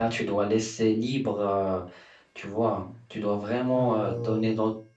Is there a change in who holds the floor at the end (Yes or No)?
No